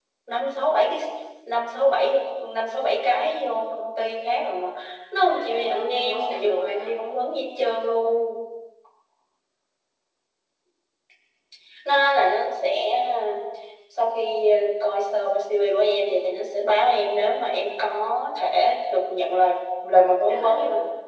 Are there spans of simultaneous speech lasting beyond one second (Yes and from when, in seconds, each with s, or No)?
Yes, from 5.3 s